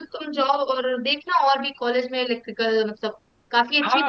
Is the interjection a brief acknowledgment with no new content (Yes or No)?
No